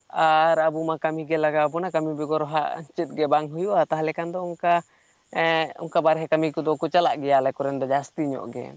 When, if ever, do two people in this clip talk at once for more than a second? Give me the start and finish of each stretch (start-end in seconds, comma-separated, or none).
none